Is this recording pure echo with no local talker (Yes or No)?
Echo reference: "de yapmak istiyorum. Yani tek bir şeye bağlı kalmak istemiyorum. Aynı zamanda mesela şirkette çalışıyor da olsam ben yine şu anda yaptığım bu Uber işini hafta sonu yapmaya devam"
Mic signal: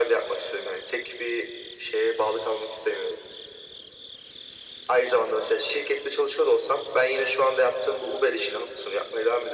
Yes